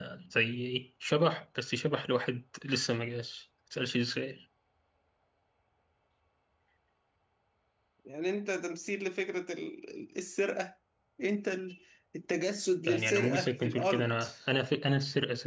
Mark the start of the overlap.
12.9 s

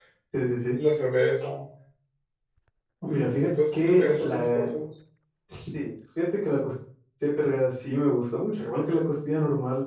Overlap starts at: 3.1 s

